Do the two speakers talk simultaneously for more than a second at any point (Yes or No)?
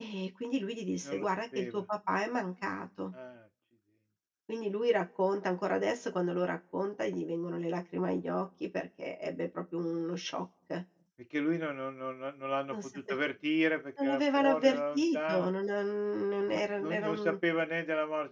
Yes